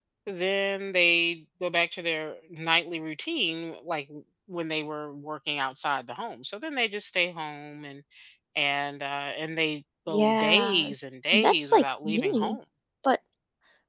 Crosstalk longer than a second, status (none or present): present